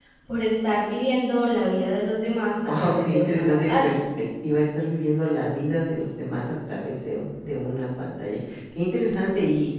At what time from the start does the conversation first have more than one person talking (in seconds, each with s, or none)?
2.7 s